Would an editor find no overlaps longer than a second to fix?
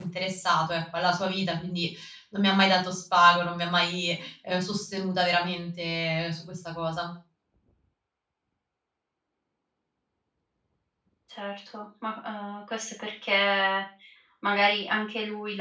Yes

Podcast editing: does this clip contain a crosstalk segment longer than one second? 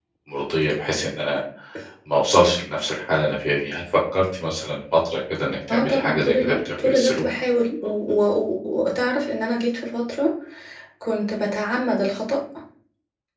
Yes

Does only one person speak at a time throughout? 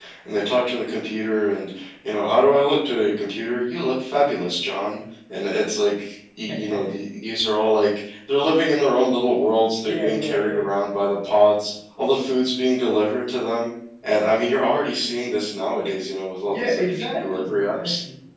No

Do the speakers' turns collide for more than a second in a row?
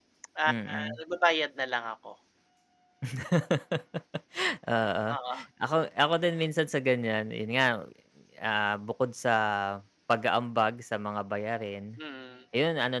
No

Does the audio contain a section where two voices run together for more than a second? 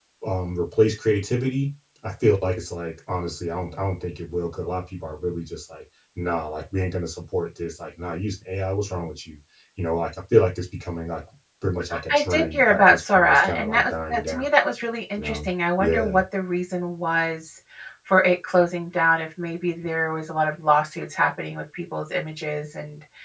Yes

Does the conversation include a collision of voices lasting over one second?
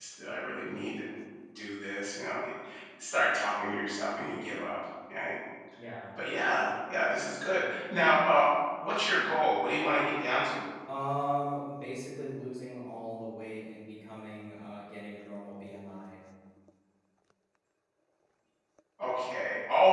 No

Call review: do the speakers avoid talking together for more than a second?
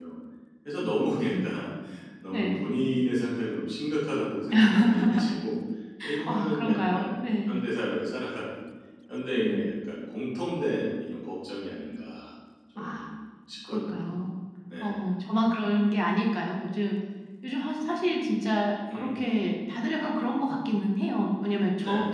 No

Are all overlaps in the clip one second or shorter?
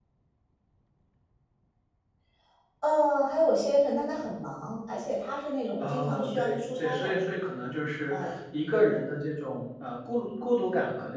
No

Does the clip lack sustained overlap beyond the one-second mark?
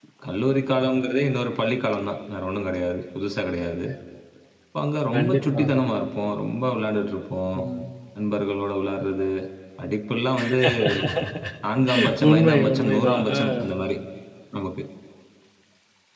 No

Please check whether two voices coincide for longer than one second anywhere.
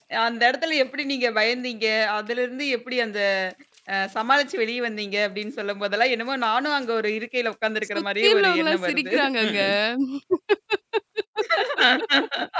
Yes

